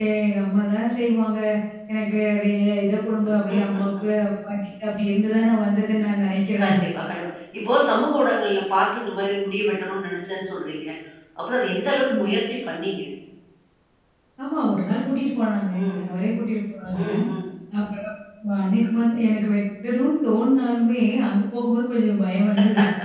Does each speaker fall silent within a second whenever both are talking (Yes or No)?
Yes